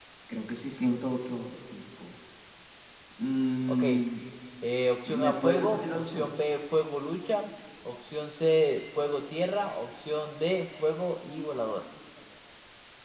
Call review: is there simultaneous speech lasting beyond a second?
Yes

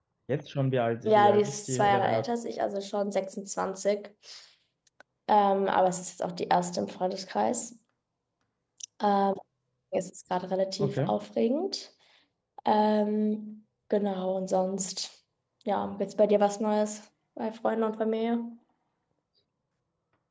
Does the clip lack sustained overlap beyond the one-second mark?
No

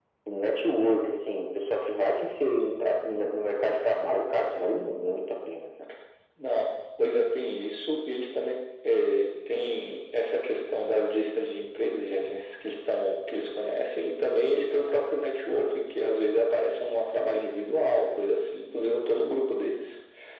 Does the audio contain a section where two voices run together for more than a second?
No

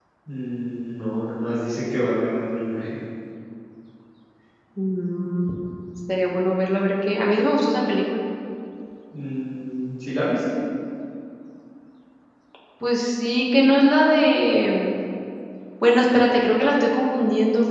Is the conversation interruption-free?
Yes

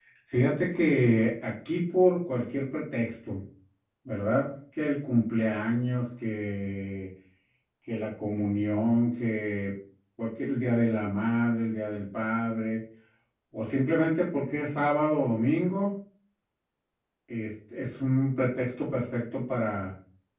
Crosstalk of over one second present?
No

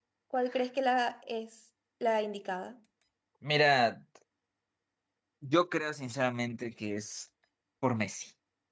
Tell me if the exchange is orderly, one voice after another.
Yes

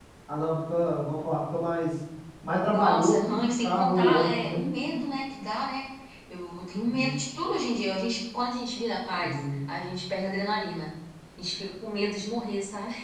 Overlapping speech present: Yes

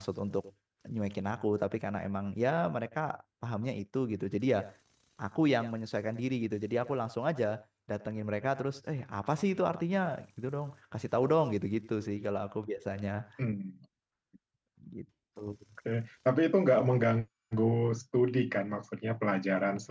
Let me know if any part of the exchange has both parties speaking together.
No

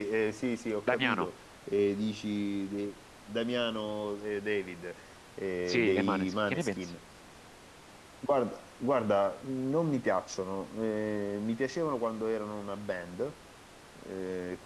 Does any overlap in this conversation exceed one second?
Yes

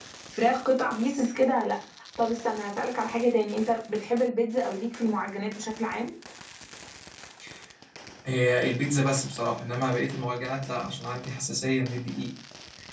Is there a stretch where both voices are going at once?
No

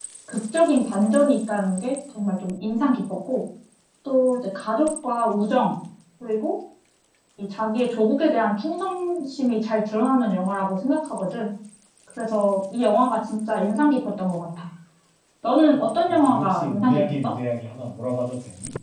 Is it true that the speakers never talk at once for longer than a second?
No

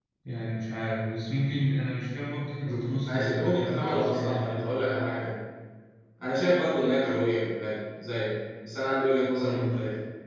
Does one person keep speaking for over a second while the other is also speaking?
Yes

